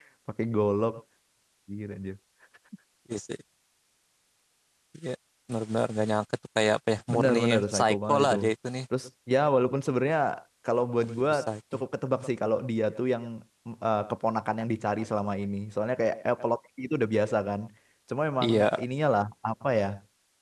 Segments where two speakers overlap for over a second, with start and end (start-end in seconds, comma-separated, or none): 7.1-8.4